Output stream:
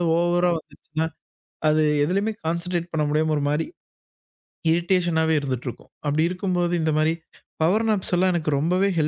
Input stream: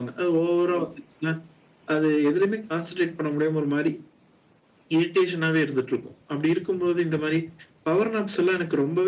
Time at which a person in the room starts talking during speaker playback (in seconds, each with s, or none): none